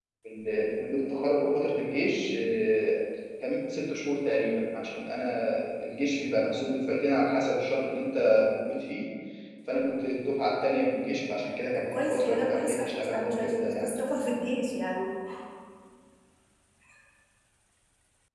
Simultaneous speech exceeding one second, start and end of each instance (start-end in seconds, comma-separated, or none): 11.9-13.9